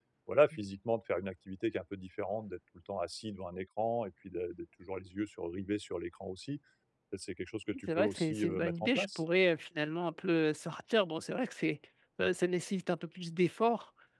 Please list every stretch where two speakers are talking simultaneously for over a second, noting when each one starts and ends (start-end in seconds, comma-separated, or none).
7.9-9.2